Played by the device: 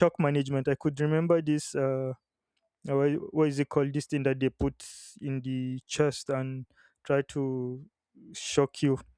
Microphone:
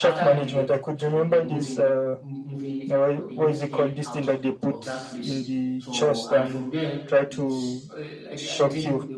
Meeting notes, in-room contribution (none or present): present